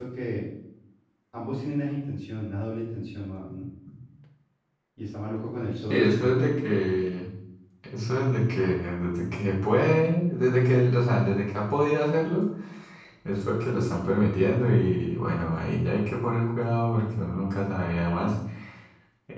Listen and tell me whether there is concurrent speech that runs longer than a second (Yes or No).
No